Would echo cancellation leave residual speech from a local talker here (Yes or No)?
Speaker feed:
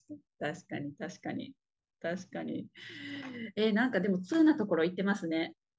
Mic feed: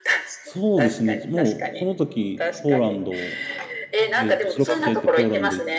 Yes